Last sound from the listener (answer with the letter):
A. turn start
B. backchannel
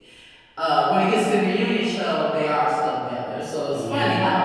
B